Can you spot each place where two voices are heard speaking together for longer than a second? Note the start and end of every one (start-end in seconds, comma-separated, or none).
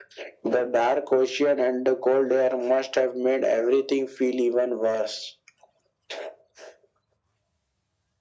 none